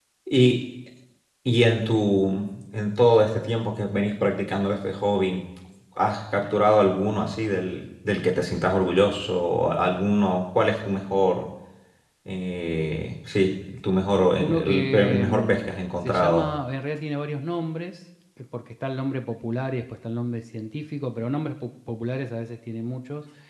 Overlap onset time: 14.4 s

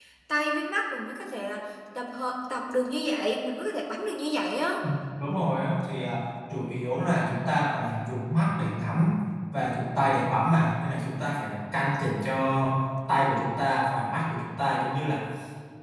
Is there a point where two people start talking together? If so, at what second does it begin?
none

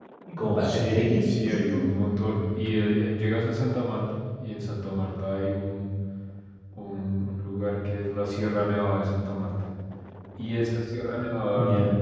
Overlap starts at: 0.6 s

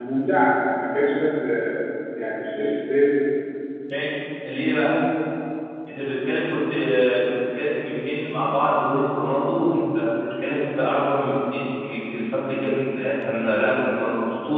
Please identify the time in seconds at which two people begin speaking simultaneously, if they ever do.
none

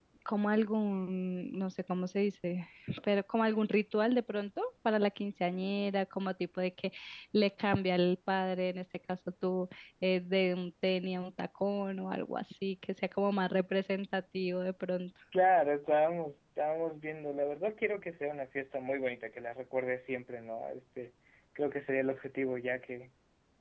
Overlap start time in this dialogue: none

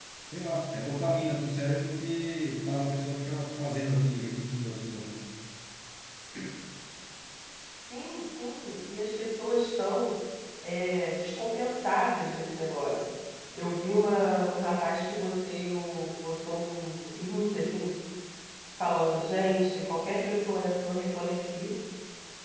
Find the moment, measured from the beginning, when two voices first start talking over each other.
none

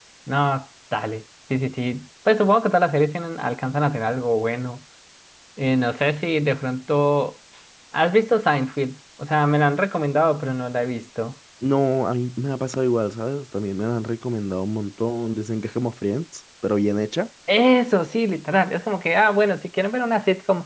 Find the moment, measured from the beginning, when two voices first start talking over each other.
none

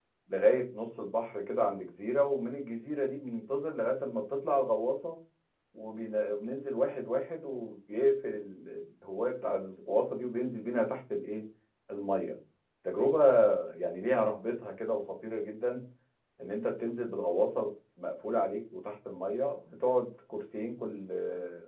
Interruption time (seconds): none

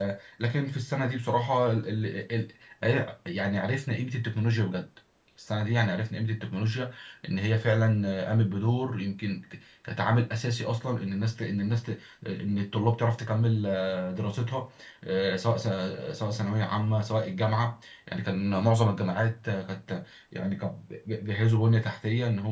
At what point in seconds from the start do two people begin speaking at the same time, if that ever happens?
none

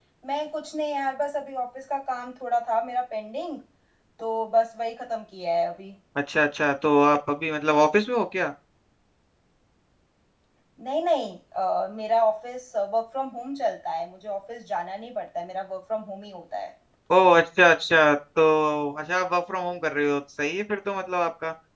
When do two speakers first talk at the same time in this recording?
none

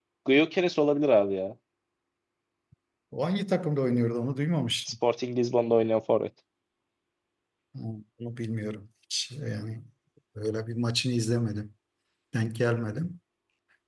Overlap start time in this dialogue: none

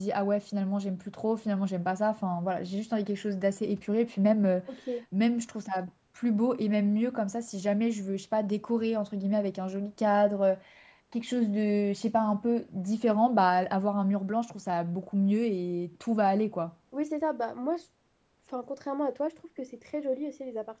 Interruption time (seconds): none

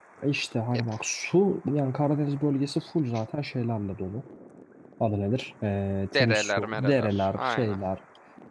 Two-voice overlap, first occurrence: 6.1 s

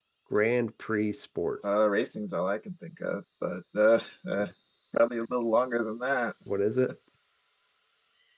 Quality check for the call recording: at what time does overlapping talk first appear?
none

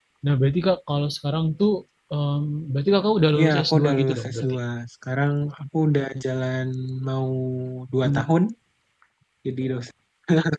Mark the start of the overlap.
3.3 s

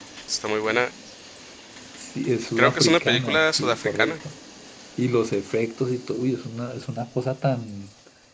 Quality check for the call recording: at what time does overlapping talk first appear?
2.6 s

